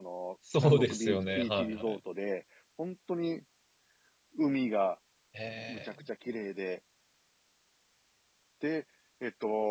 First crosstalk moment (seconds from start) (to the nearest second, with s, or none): 1 s